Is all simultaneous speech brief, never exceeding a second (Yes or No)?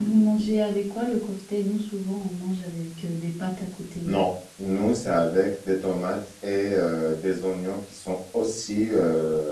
Yes